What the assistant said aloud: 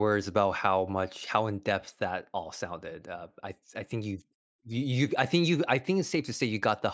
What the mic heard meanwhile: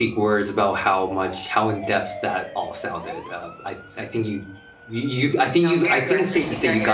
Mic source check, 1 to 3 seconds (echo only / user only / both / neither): echo only